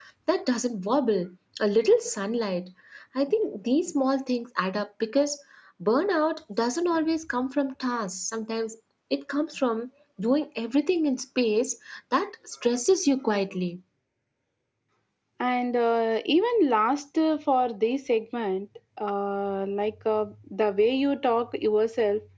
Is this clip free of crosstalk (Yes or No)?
Yes